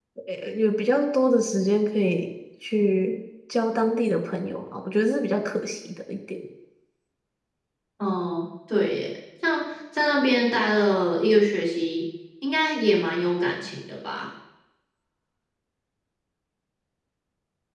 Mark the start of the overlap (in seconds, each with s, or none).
none